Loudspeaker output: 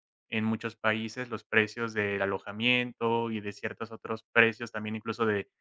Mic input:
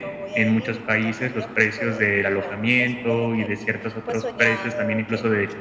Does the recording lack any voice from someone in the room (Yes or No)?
No